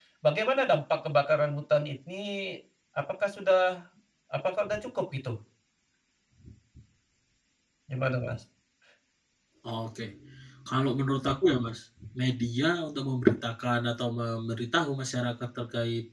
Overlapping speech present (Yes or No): No